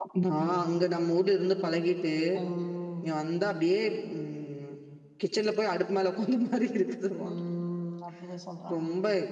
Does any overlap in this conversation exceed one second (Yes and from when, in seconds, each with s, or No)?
No